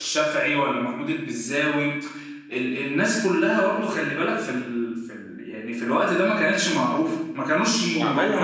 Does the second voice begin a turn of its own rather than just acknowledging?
Yes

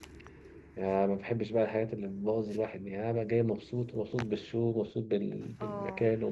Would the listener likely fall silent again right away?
Yes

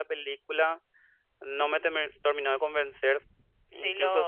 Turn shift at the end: No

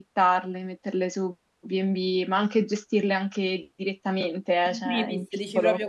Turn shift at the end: Yes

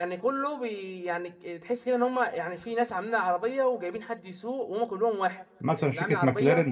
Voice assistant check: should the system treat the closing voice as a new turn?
Yes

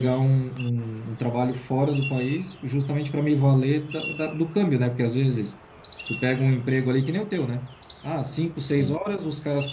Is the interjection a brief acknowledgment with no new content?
Yes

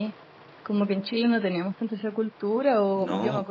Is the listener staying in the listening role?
Yes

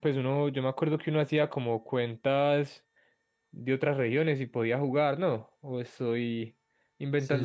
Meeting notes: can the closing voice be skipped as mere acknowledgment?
No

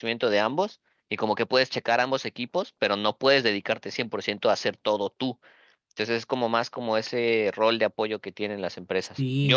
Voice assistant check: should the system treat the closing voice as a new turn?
Yes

